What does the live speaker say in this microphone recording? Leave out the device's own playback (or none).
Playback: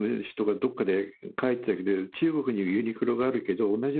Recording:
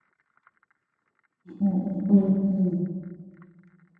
うんうんうんうん。